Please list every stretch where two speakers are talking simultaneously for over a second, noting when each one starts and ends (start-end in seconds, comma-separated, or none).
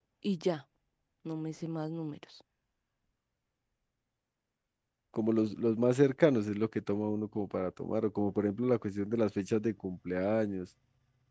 none